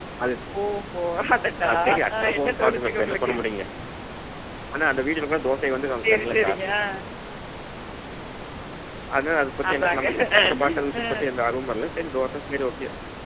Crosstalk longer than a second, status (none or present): present